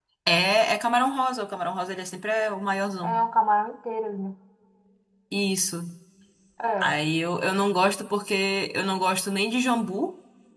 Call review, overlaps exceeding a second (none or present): none